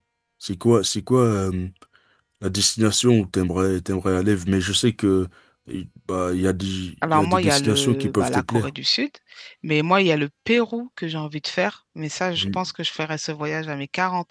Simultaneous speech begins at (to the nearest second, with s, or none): 7 s